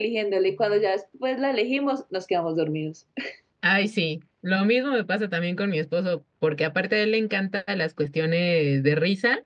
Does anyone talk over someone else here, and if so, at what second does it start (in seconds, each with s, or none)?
none